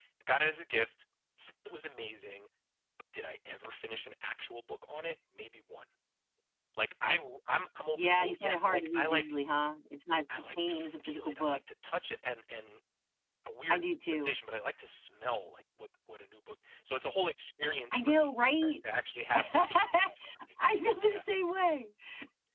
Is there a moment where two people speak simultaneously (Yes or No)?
Yes